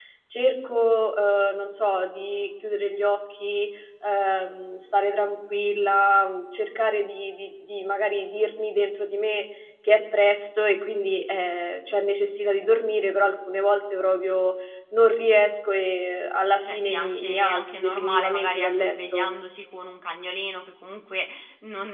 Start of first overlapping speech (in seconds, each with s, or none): 16.6 s